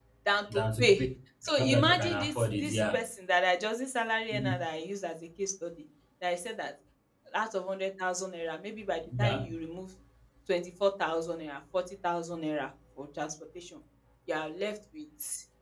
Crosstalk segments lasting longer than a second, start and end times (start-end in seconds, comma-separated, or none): 1.6-3.0